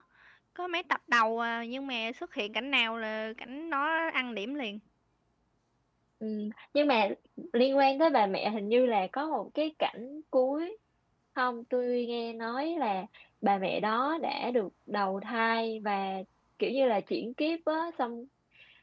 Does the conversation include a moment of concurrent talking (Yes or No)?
No